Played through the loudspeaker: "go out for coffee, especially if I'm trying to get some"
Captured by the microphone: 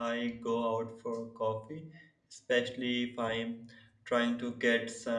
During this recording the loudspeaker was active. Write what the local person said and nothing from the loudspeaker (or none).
none